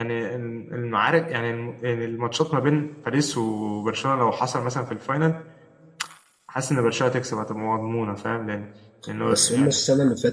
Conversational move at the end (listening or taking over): taking over